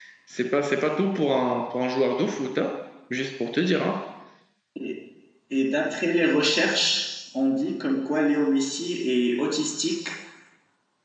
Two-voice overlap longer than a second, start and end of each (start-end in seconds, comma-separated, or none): none